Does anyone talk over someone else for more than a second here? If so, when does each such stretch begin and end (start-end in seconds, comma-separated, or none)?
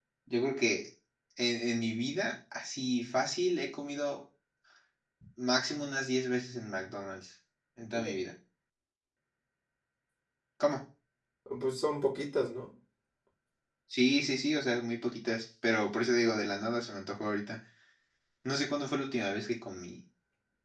none